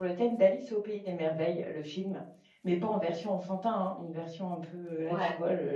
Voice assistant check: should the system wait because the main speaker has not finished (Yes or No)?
Yes